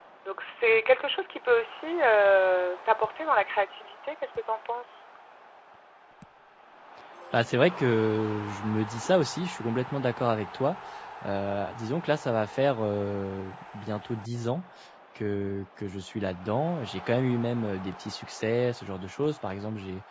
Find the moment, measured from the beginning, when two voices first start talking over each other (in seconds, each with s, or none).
none